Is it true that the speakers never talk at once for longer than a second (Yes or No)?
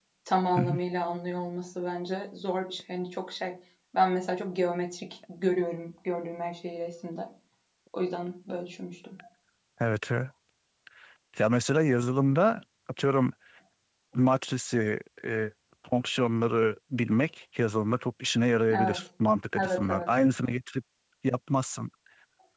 Yes